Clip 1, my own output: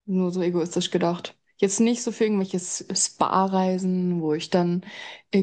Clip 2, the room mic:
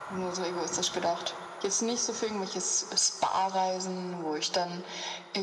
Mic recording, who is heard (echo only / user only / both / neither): echo only